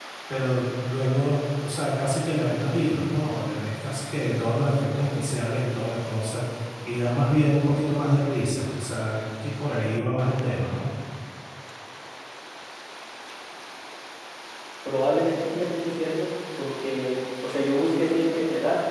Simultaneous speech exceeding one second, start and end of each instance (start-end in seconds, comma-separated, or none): none